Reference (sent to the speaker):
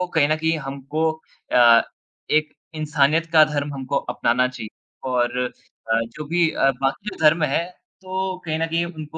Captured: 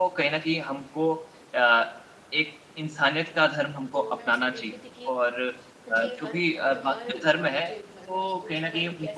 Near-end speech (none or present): present